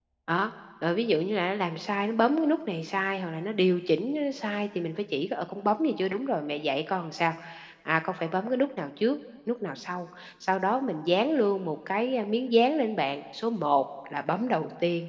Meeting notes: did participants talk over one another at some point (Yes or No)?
No